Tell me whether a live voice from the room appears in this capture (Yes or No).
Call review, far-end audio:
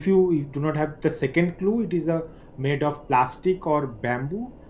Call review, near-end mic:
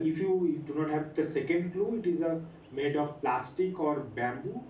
No